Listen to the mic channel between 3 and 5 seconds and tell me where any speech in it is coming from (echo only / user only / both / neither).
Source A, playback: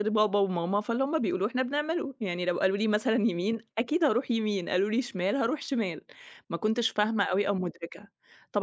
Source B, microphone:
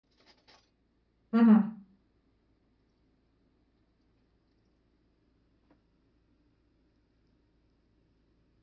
neither